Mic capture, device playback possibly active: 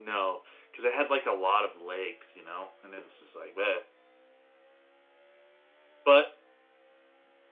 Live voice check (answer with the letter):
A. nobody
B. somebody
A